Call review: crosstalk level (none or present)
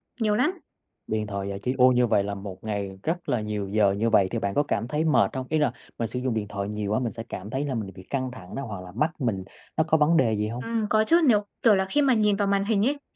none